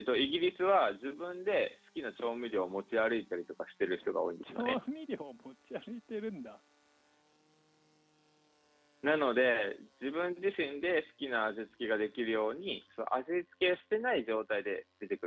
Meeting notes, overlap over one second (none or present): none